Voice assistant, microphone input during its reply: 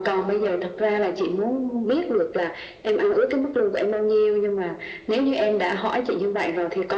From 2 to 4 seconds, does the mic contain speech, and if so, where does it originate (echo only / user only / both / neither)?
echo only